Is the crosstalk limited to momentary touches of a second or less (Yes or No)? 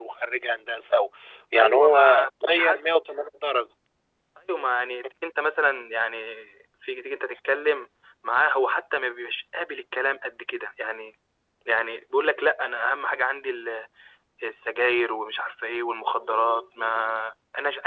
No